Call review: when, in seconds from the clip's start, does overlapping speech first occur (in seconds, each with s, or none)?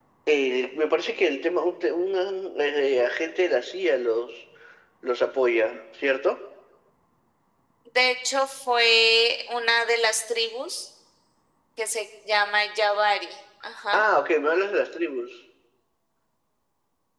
none